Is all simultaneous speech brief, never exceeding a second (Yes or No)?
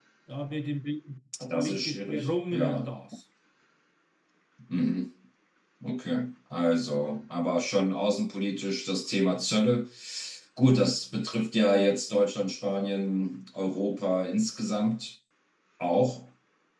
No